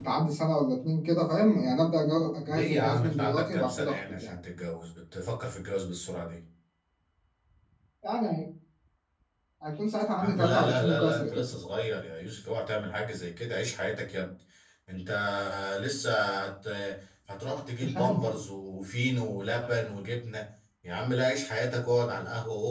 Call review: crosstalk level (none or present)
present